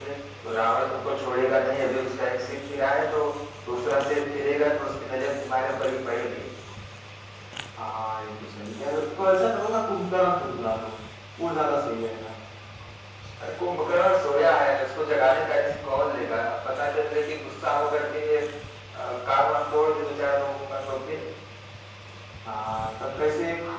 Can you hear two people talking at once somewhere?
No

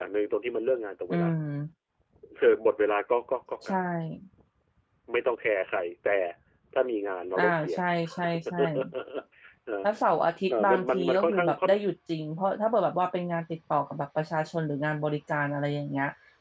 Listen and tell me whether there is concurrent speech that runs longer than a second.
Yes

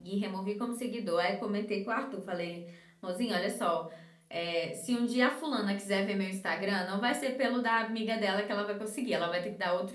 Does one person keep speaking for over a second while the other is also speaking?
No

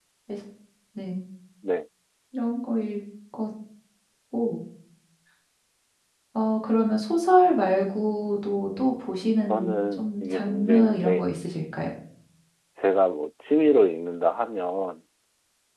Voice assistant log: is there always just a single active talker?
No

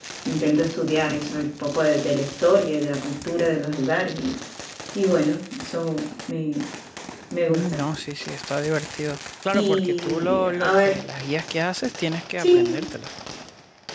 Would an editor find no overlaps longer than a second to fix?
No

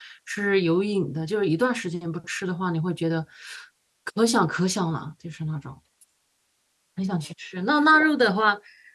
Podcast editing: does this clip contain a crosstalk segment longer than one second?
No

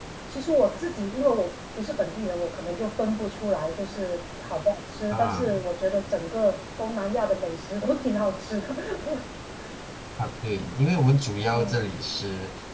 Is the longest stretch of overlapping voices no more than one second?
Yes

